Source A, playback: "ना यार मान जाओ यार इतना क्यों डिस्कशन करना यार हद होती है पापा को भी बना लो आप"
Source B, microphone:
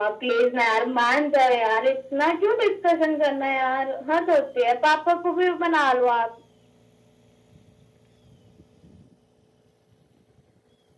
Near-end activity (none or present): none